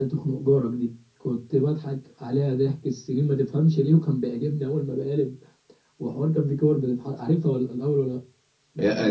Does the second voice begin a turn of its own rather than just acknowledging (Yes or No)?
Yes